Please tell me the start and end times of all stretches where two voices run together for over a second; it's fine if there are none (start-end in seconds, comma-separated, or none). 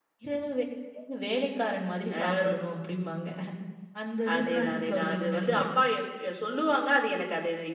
4.3-5.6